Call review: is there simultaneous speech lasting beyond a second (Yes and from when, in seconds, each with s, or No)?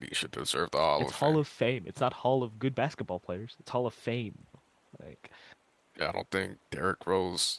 No